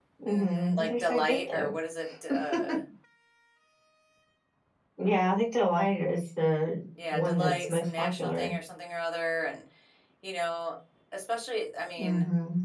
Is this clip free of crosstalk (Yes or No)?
No